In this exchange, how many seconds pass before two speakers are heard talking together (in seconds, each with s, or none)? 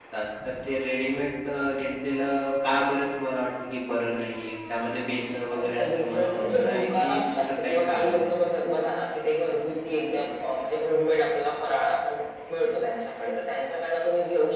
5.5 s